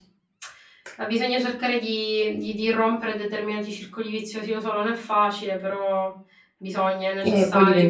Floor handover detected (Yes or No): Yes